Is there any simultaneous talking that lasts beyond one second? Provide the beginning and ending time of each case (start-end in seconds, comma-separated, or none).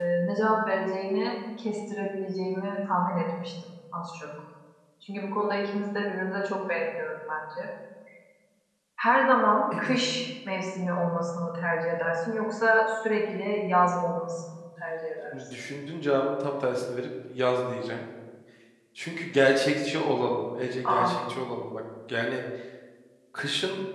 none